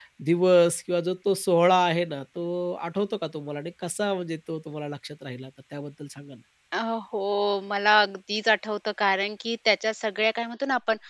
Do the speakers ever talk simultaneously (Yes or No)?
No